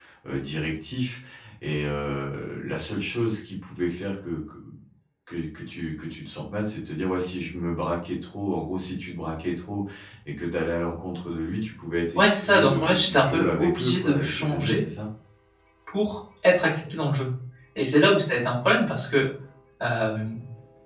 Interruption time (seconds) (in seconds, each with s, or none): 12.1 s